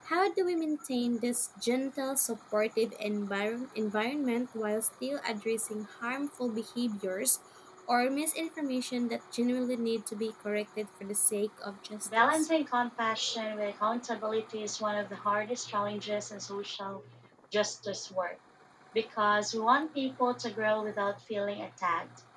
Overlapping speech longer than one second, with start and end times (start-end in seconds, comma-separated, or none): none